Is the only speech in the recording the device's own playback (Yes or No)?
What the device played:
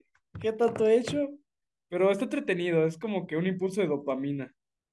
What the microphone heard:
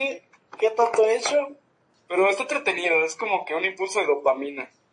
Yes